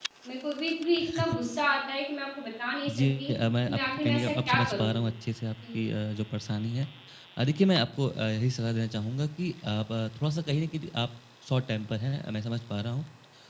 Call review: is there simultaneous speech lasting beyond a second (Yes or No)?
Yes